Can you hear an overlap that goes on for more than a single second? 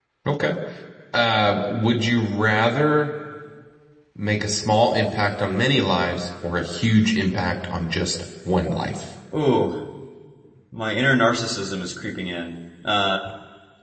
No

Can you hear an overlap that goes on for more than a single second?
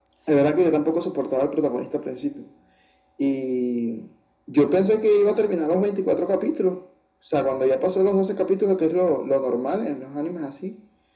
No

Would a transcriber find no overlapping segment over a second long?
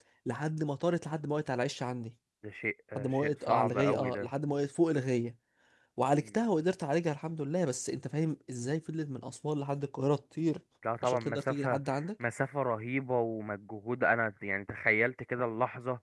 No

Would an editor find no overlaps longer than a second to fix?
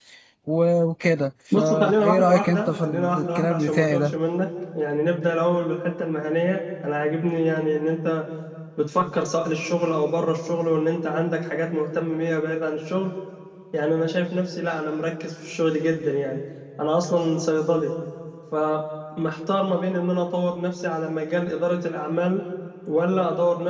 No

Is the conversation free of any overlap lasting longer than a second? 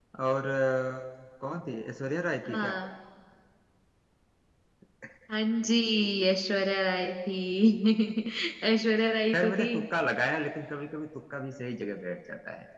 Yes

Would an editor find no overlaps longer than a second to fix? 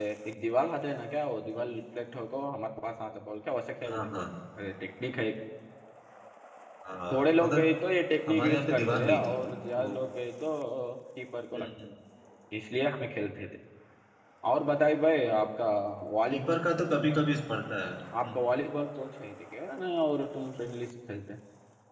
No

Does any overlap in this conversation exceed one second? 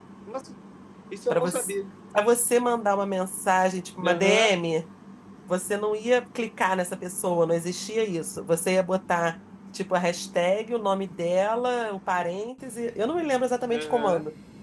No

